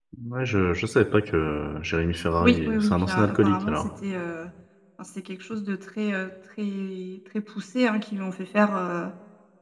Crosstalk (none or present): present